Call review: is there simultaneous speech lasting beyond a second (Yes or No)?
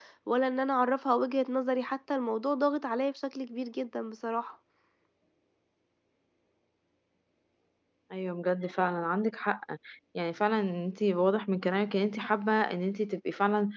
No